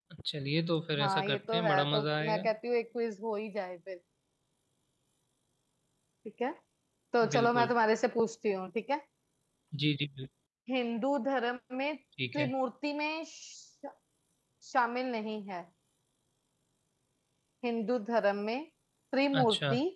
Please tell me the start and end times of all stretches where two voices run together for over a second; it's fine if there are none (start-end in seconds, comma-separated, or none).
1.0-2.5